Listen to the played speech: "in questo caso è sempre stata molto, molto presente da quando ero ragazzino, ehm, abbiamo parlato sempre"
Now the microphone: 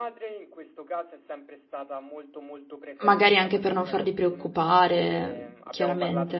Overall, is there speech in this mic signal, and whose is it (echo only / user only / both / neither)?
both